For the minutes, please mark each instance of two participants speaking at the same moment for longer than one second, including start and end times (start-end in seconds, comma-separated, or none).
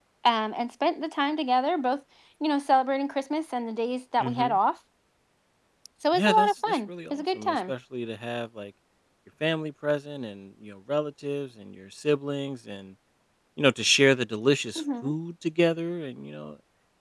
6.1-7.7